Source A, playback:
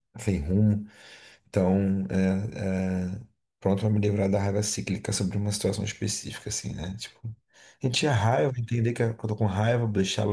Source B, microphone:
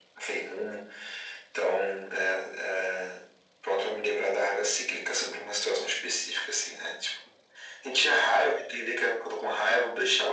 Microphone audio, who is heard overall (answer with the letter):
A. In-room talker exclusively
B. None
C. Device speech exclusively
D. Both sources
C